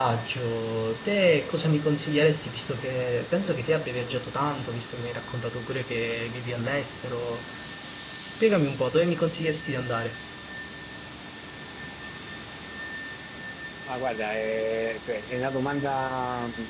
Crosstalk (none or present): none